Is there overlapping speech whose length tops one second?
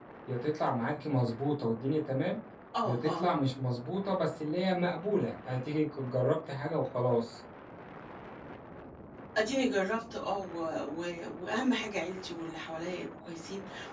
No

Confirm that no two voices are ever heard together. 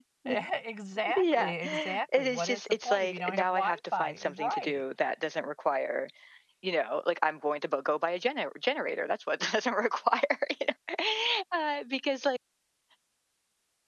No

